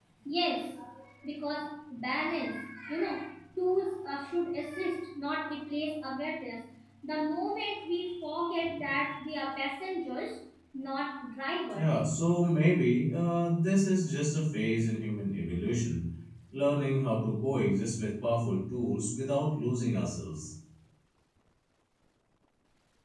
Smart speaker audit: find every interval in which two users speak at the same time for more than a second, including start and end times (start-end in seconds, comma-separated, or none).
none